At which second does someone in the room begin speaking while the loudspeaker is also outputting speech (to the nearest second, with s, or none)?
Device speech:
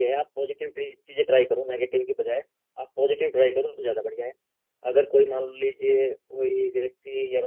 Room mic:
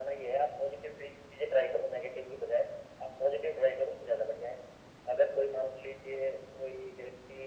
none